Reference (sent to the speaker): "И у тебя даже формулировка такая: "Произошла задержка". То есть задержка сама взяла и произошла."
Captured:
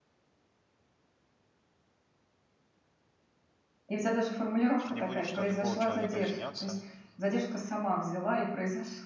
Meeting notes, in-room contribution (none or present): present